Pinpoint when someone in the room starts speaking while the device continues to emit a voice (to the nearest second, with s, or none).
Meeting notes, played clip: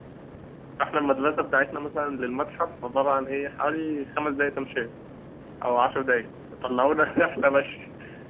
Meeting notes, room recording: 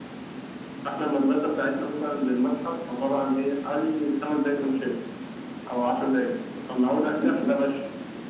none